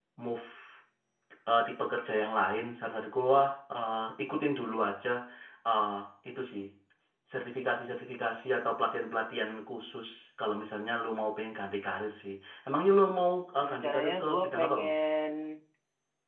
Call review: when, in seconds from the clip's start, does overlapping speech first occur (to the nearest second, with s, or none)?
14 s